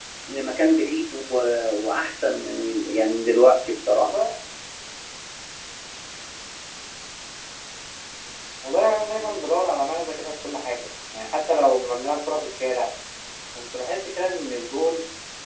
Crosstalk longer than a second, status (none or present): none